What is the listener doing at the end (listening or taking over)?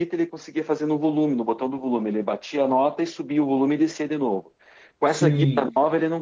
listening